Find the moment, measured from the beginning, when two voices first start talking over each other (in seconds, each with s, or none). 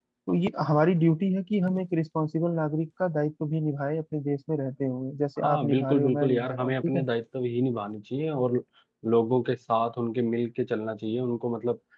5.4 s